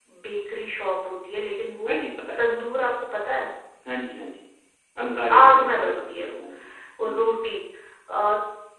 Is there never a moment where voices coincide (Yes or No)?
No